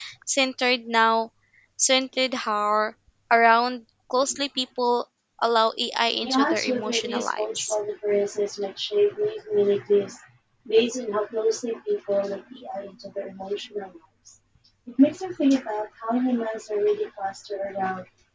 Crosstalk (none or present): present